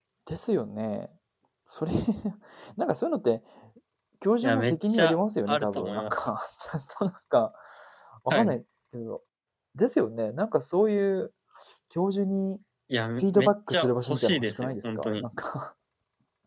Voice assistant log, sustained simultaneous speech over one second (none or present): present